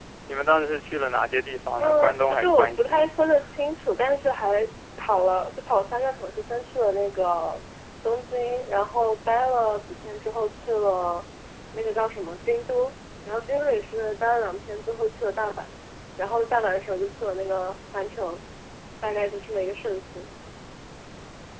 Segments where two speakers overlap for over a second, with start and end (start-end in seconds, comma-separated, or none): 1.8-3.1